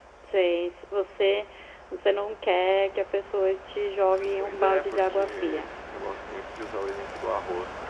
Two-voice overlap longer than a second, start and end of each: 4.4-5.7

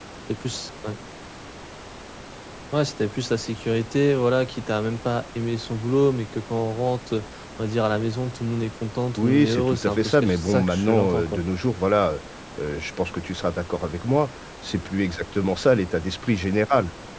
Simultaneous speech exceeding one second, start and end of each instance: 9.2-11.4

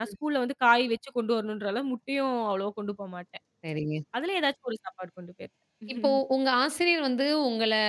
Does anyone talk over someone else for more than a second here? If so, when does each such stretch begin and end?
none

